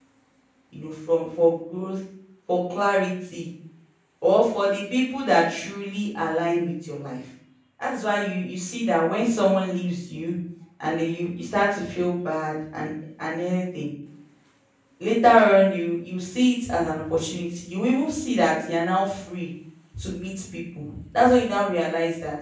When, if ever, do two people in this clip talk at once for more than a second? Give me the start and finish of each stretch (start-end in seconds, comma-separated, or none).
none